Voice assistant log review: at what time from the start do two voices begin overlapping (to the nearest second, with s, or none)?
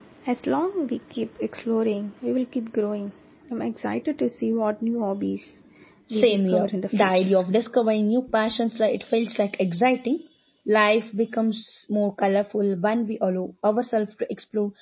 6 s